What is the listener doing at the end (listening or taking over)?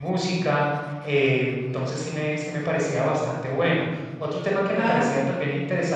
listening